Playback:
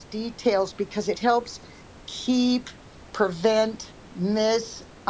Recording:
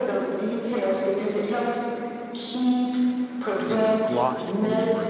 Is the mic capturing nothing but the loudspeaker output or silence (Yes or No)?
No